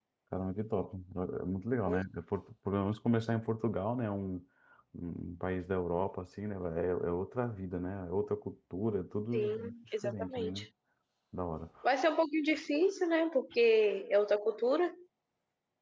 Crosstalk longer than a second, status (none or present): present